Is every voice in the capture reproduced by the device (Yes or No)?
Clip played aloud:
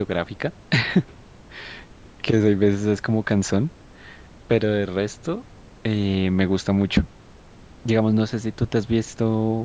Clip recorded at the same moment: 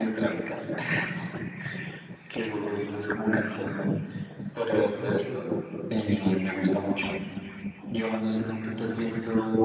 No